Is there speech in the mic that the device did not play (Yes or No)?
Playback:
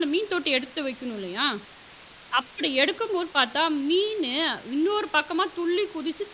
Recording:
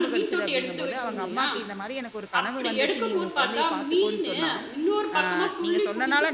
Yes